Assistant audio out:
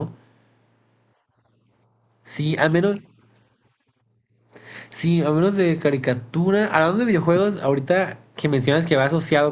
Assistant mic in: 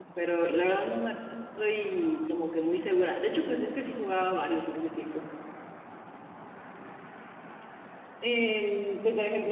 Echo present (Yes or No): No